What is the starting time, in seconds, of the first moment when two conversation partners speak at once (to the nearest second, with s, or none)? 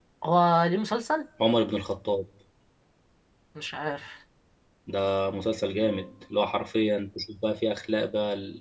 none